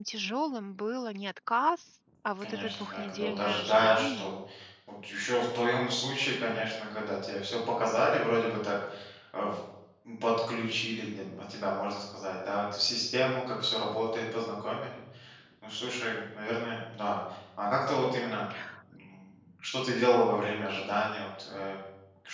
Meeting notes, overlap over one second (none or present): present